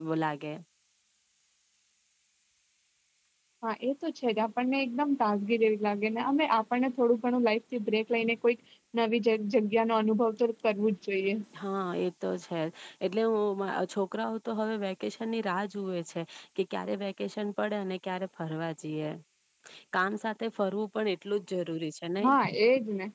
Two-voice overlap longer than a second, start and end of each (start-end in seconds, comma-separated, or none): none